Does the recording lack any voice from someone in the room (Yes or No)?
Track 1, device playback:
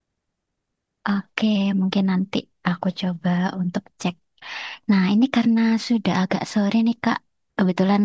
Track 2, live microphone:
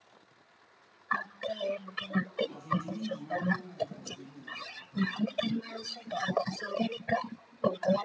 No